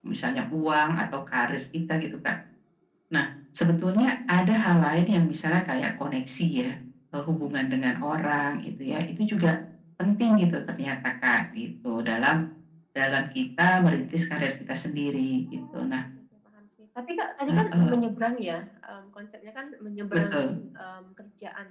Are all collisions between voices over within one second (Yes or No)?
Yes